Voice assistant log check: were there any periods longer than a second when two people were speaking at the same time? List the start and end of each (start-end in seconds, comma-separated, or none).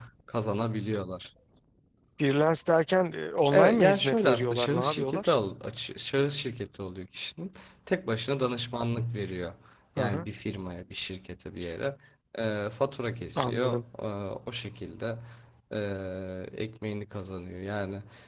3.5-5.3